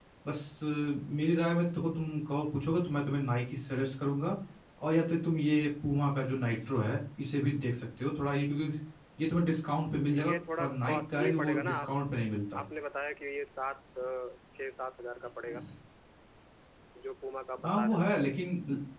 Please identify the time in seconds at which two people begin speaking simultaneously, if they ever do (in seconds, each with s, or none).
10.1 s